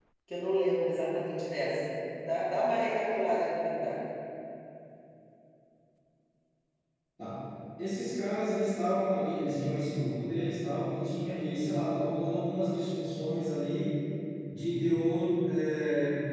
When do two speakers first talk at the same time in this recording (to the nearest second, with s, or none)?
none